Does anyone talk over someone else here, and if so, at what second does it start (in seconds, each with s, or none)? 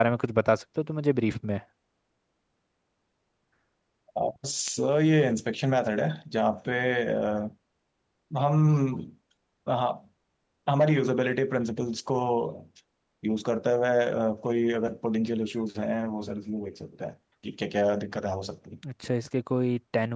none